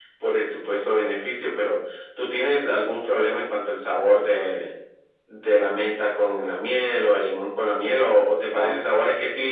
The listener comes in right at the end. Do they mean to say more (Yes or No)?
No